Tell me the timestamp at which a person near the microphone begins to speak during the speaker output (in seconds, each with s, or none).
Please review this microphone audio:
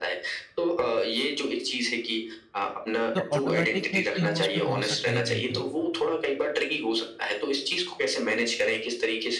3.1 s